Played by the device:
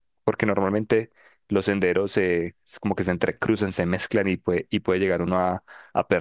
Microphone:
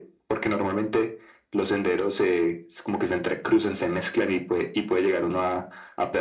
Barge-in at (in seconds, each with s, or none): none